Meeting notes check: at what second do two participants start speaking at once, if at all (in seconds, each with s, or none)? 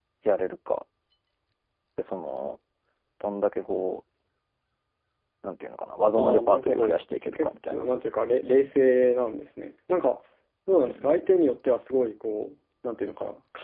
6.2 s